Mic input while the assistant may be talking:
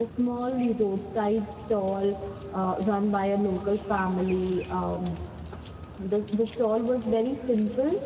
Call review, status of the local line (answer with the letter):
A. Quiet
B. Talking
B